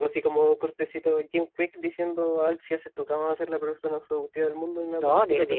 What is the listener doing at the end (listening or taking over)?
taking over